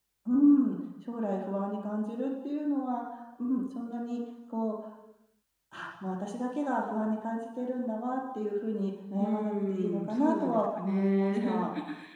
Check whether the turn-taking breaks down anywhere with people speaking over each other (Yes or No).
Yes